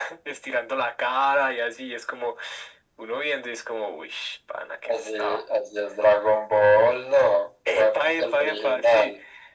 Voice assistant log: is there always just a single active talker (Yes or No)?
No